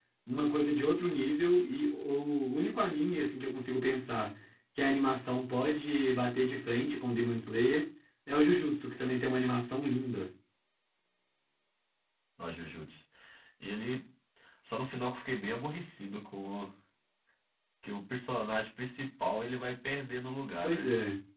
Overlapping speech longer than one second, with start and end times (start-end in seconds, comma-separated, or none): none